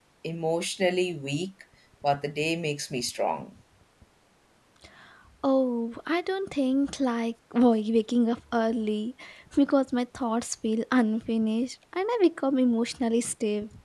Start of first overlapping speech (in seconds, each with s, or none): none